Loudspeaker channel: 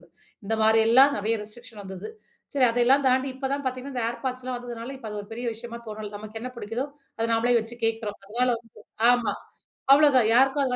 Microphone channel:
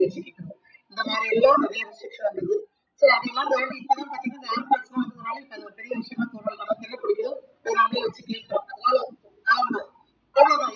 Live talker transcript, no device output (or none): none